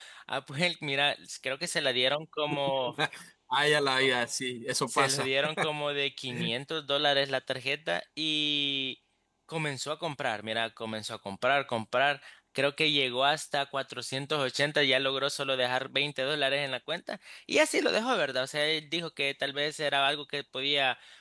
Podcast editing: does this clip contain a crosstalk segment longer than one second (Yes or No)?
No